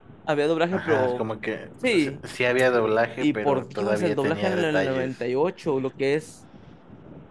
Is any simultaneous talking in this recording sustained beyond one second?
Yes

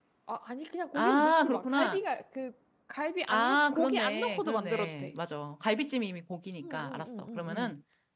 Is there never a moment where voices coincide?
No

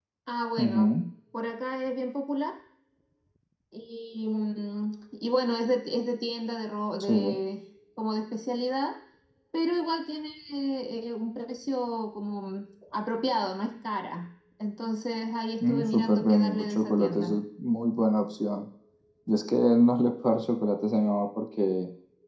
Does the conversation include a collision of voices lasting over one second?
Yes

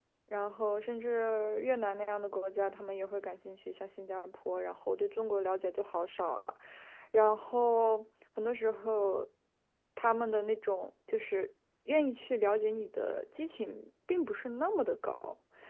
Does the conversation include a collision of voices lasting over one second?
No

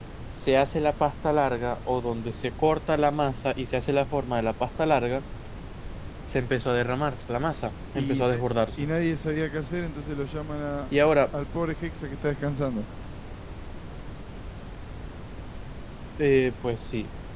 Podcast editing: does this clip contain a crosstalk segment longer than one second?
No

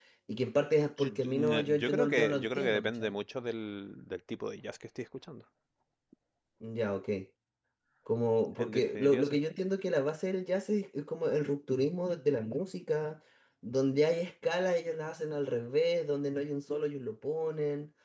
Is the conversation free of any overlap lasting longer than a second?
No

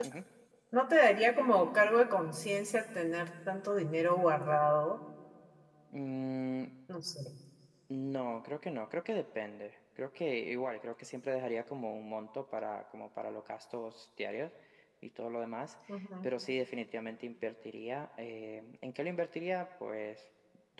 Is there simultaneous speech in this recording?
No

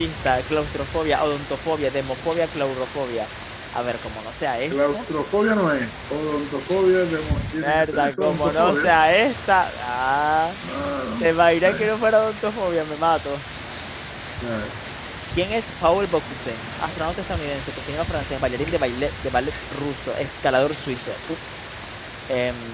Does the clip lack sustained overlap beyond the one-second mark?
No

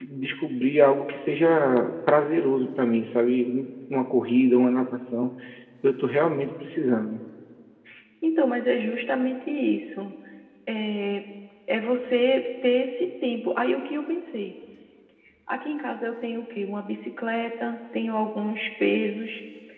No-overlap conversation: Yes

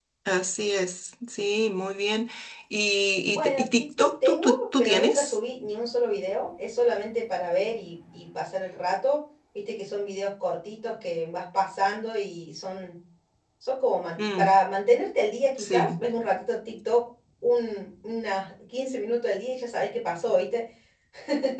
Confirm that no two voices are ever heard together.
No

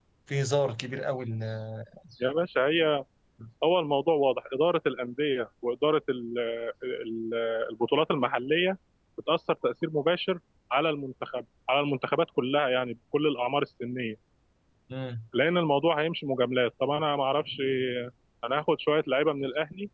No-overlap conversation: Yes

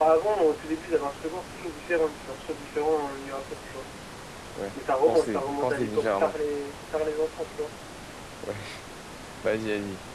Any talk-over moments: Yes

